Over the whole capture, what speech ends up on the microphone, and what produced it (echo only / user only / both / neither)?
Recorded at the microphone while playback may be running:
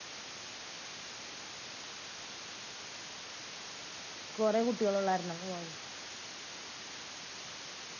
user only